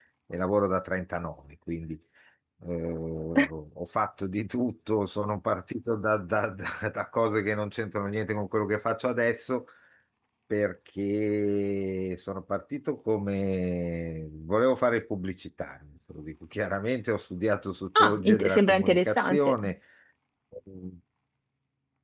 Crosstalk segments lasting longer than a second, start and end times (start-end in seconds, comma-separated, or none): 17.9-19.6